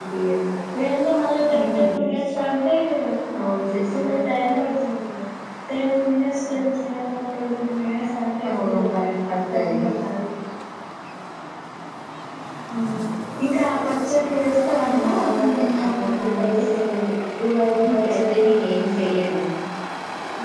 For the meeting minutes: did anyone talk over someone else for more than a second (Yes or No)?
Yes